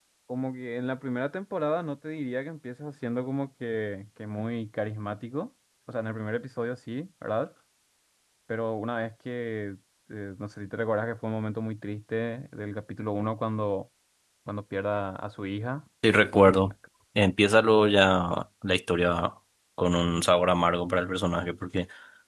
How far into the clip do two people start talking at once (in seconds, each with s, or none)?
none